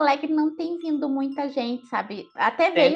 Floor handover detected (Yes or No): No